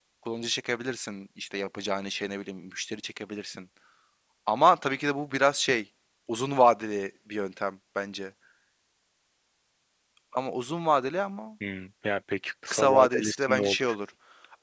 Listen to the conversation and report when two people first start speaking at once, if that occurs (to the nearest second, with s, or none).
13 s